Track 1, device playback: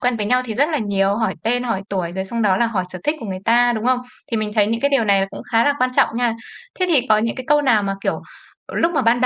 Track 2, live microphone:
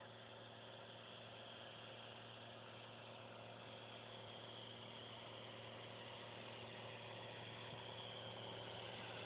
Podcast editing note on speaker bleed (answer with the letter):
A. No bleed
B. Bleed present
A